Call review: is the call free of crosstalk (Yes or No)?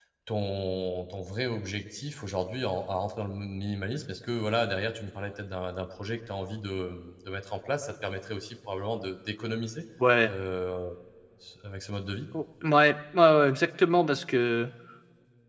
Yes